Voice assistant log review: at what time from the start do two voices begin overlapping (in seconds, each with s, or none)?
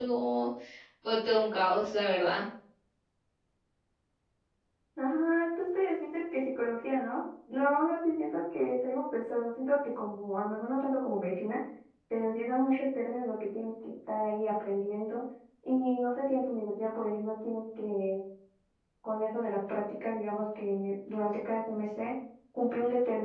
none